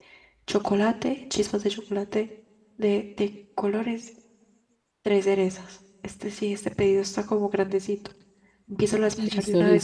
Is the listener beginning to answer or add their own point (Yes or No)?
Yes